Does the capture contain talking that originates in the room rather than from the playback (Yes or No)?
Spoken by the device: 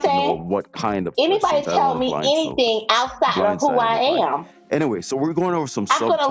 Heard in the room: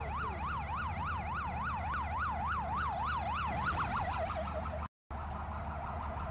No